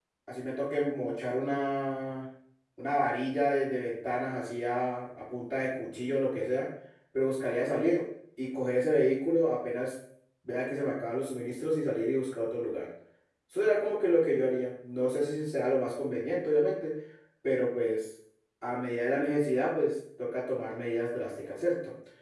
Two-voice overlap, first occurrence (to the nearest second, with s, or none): none